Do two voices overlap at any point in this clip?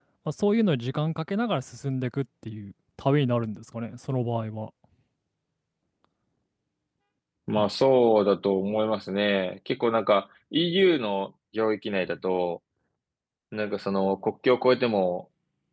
No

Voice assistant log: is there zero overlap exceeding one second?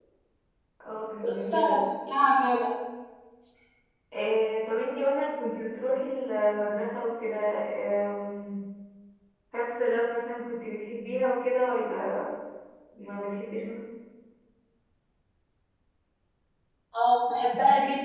Yes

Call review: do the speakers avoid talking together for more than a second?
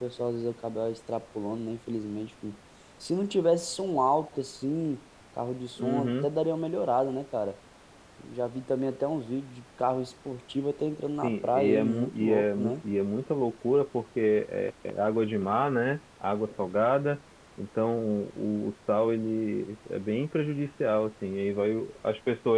No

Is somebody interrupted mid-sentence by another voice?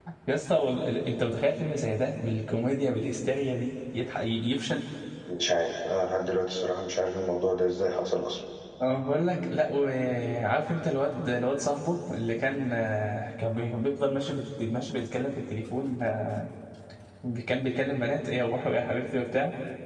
No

